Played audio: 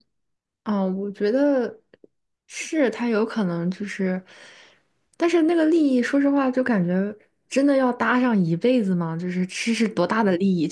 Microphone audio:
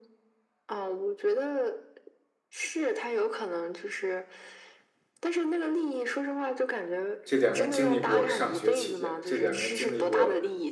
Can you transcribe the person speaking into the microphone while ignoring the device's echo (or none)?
这两个人经历过上学期间，这两个人经历过